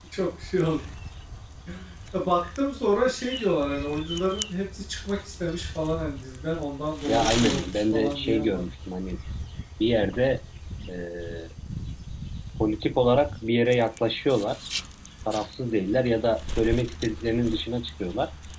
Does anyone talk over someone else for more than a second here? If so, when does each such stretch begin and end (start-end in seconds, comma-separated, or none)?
7.1-8.6